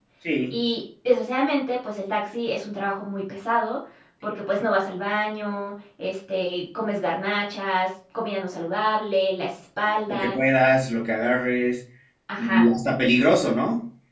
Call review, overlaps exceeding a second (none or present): none